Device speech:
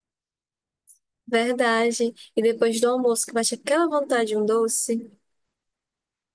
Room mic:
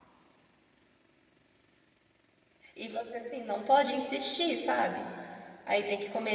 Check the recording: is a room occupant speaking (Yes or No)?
Yes